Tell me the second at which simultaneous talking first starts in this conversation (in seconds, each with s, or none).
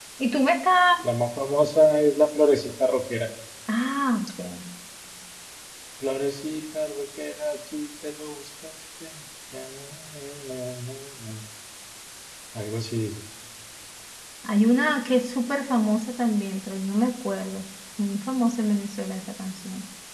none